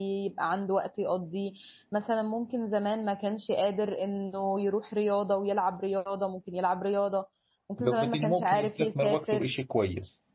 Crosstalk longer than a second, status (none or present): present